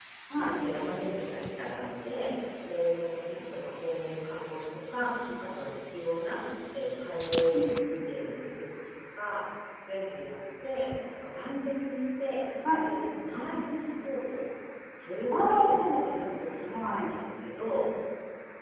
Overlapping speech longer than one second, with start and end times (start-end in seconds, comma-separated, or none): 15.3-17.1